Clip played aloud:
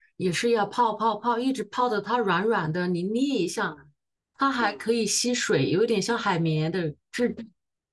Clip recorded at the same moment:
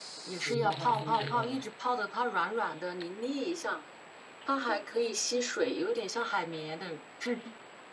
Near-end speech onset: 0.4 s

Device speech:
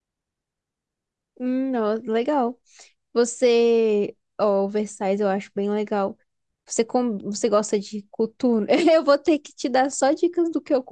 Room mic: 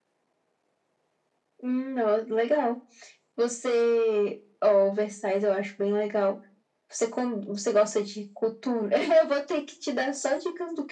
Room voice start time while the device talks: none

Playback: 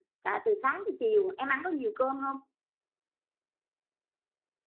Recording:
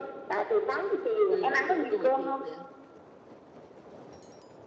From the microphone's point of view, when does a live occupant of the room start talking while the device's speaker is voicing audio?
1.2 s

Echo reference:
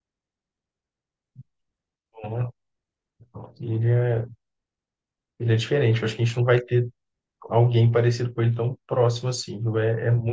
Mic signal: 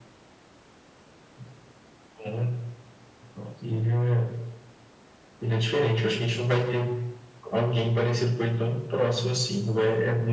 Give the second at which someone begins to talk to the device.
none

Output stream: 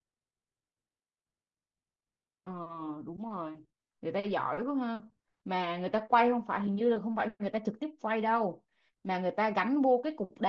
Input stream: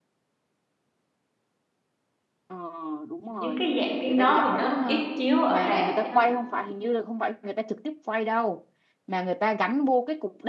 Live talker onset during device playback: 3.2 s

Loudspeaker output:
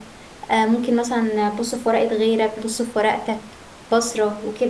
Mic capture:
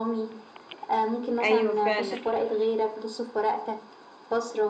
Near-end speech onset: 1.4 s

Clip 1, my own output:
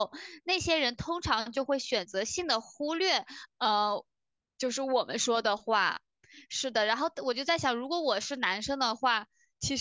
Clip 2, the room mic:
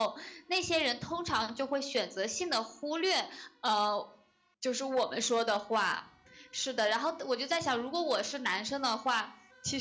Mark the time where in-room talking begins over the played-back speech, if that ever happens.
none

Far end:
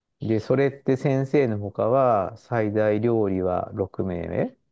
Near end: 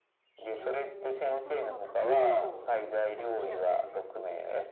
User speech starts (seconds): 0.6 s

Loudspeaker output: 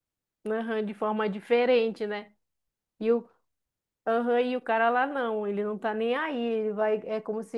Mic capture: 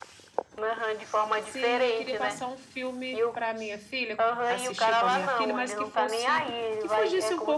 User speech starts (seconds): 1.4 s

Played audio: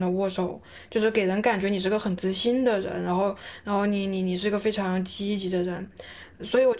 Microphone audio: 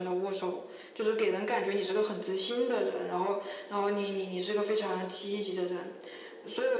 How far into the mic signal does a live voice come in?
none

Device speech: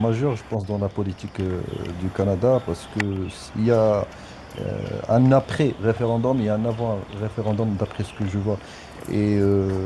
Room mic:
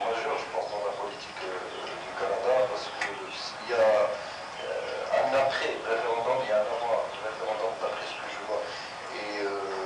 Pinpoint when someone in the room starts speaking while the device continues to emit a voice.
none

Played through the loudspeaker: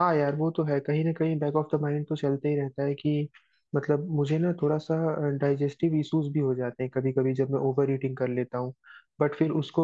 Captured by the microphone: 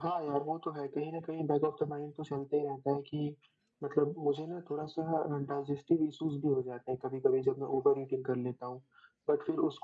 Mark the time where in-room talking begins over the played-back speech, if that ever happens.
none

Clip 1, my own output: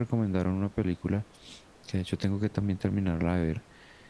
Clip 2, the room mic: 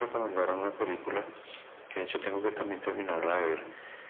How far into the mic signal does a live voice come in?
none

